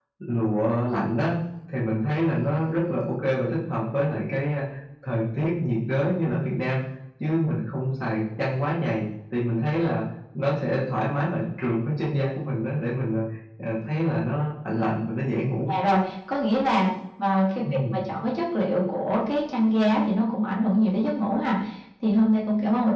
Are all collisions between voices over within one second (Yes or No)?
Yes